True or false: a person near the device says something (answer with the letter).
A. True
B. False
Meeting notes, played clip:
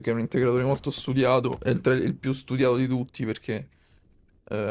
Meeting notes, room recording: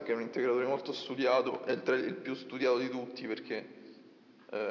B